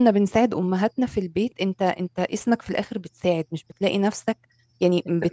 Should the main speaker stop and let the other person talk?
No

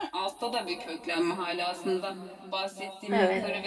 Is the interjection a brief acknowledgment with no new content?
Yes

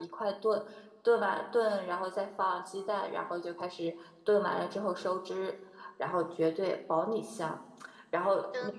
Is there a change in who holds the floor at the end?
No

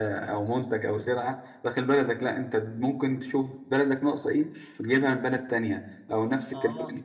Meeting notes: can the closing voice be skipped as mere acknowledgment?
Yes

